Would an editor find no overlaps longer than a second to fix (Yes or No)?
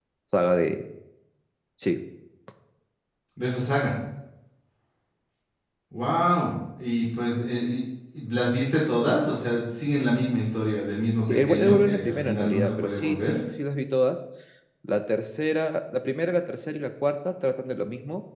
No